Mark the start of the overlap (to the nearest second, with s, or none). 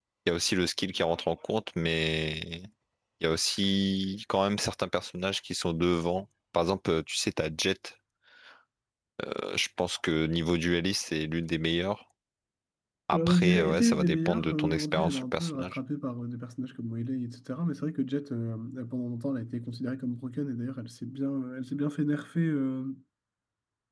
13 s